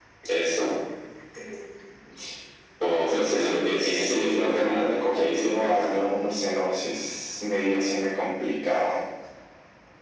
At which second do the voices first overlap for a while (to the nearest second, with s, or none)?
3 s